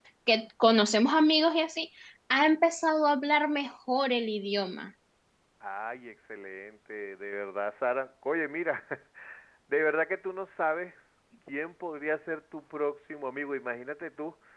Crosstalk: none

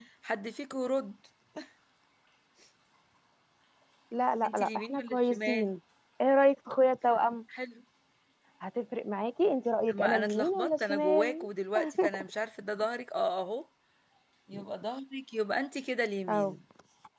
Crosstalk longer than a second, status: present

